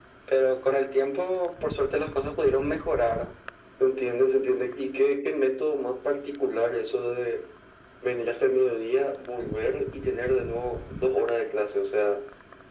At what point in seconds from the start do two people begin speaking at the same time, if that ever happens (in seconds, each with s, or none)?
none